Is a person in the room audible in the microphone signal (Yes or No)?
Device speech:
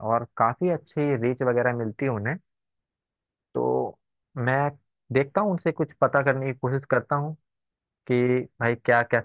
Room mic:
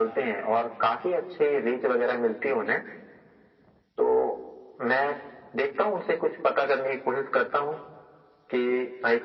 No